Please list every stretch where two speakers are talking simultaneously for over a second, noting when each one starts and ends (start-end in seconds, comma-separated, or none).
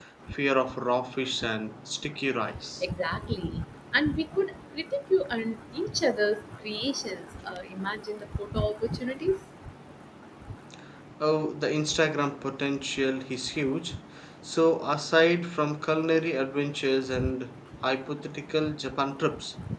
none